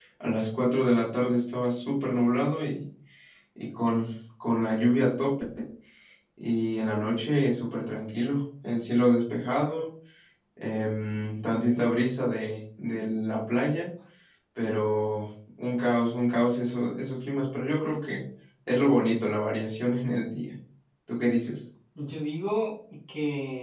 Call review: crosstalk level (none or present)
none